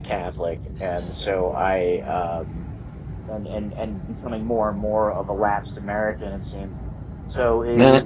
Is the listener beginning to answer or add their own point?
No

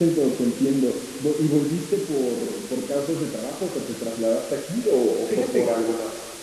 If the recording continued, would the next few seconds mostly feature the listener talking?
Yes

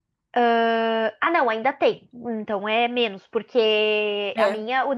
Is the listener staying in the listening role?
Yes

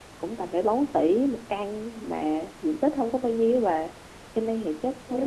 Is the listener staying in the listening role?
Yes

